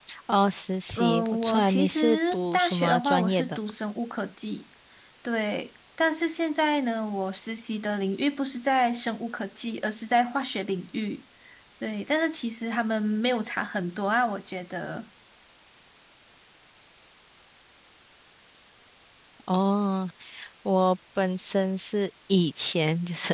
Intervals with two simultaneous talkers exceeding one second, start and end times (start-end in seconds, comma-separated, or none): 0.9-3.6